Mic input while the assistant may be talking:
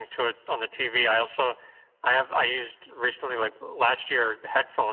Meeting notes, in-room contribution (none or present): none